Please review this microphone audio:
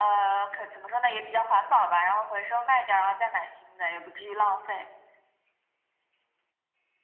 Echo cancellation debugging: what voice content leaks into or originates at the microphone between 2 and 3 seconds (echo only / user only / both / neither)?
echo only